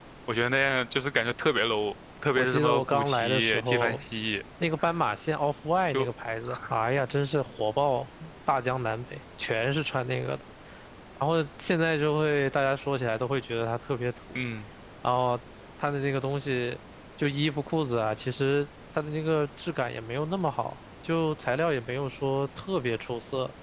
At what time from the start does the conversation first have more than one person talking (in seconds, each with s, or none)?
2.4 s